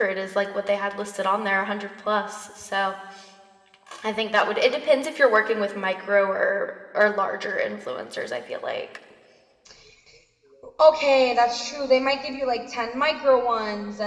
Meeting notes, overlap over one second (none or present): none